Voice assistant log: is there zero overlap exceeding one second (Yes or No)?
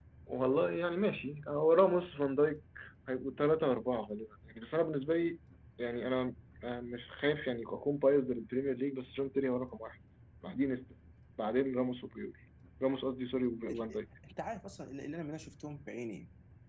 Yes